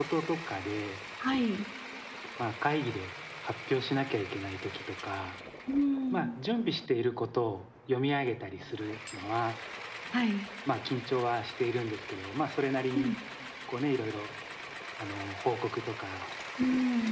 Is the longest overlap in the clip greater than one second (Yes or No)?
No